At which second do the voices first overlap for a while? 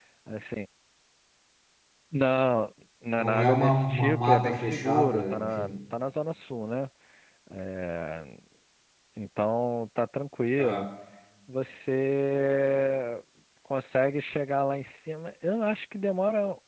3.2 s

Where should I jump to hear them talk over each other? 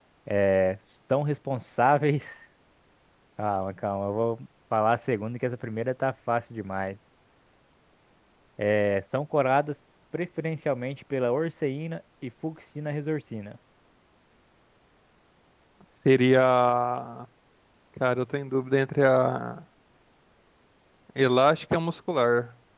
none

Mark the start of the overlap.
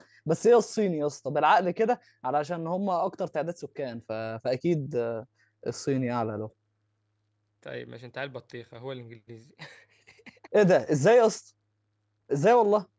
none

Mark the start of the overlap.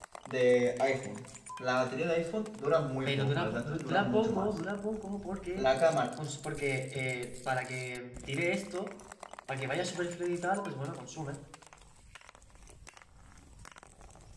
3.0 s

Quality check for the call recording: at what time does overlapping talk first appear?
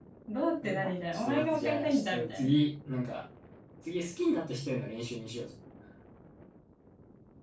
0.6 s

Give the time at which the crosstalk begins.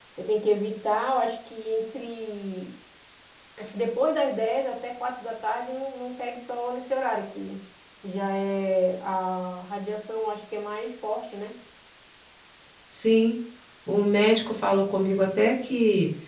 none

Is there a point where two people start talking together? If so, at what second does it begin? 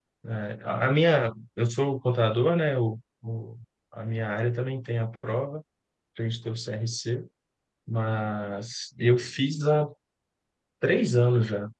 none

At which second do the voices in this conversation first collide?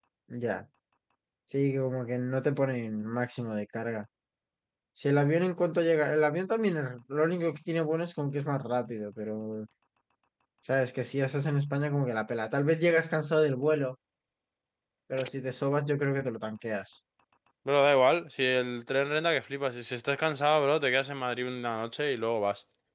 none

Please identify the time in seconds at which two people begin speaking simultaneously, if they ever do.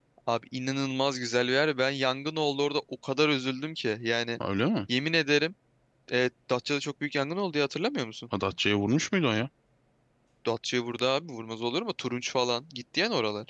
none

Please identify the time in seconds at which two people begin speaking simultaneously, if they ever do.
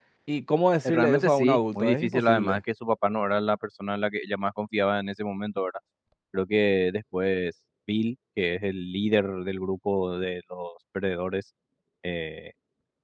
0.8 s

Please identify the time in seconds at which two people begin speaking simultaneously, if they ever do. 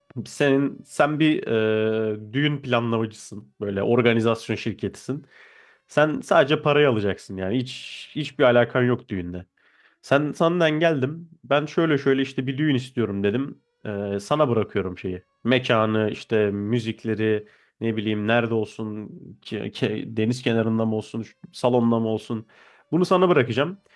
none

